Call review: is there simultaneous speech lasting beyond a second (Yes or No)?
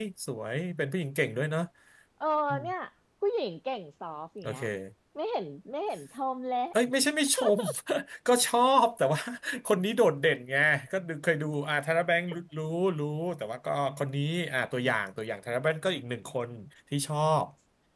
No